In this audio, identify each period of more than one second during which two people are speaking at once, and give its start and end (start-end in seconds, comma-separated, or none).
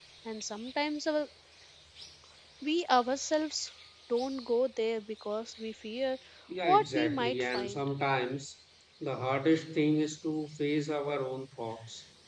6.6-7.9